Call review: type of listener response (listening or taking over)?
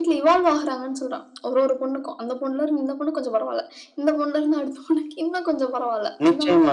taking over